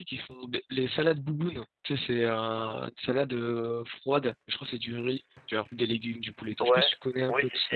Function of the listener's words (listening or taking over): taking over